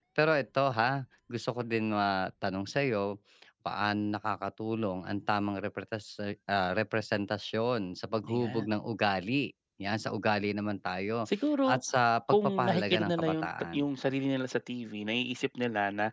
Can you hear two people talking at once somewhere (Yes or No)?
Yes